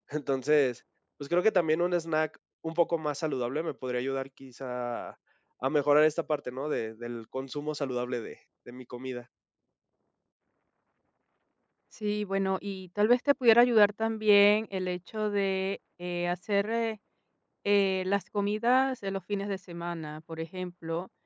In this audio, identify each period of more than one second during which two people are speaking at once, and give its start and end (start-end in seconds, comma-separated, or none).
none